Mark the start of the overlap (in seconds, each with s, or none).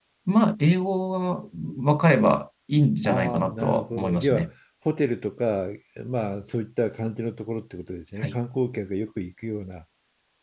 3.0 s